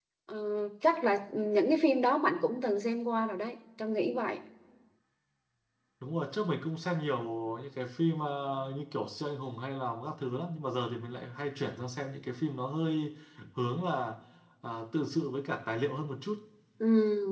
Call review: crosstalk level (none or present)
none